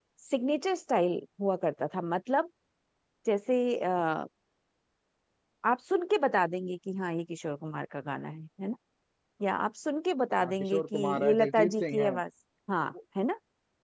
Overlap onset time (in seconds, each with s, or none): 10.4 s